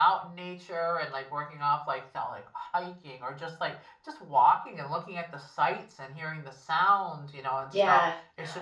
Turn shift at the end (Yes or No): Yes